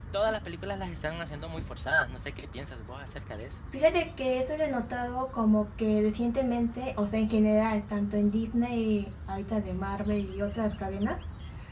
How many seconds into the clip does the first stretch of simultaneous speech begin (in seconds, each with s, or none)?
none